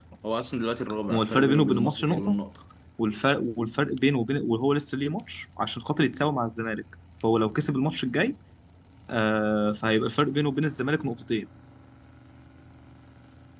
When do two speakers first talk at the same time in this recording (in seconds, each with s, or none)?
1.1 s